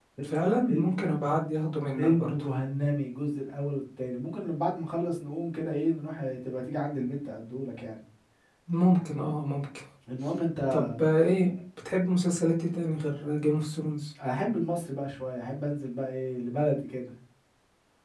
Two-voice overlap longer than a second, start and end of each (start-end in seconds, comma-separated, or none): none